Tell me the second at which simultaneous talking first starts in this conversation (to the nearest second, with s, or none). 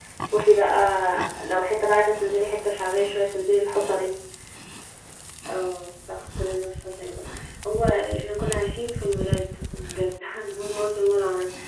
none